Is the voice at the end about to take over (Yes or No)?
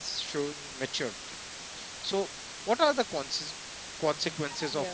No